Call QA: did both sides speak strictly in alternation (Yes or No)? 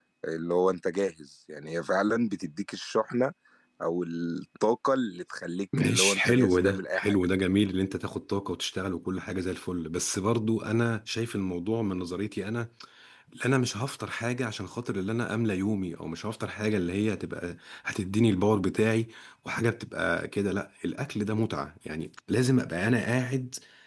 No